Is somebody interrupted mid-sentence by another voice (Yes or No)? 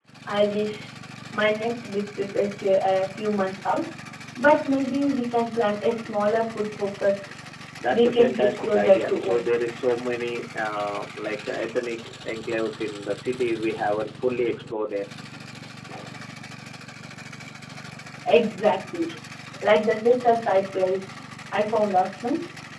Yes